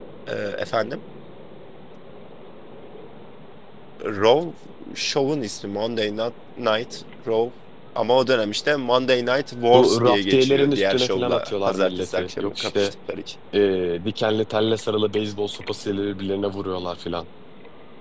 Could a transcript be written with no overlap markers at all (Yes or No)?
No